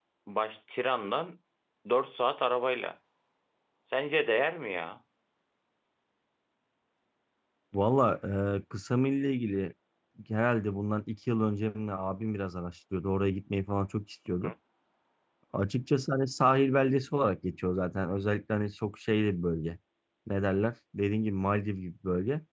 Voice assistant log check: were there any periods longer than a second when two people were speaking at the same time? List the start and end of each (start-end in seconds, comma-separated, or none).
none